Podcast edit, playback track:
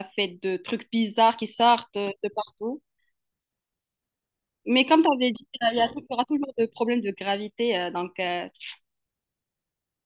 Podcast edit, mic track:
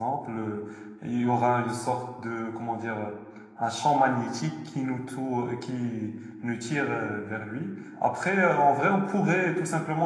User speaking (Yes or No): Yes